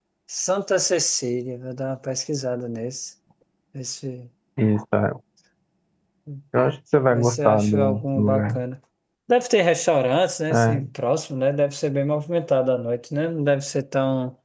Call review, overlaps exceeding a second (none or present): present